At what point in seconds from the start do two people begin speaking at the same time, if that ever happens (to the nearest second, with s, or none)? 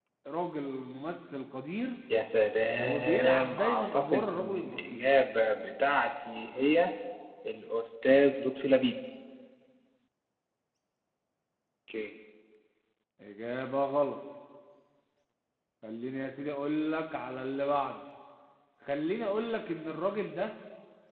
3 s